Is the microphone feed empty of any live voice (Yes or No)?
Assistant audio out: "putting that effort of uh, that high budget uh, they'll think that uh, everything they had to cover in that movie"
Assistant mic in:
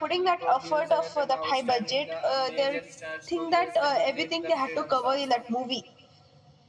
No